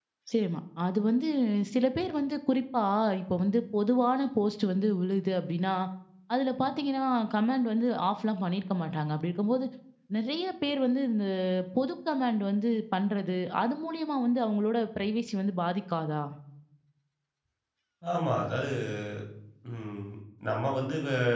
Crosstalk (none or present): none